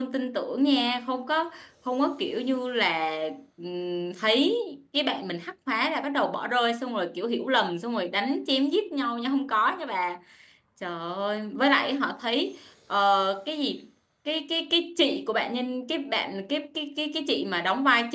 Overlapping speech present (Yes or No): No